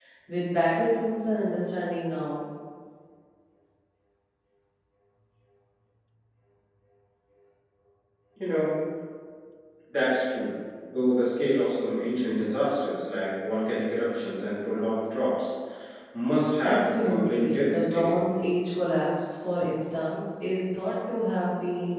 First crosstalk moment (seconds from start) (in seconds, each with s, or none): 16.6 s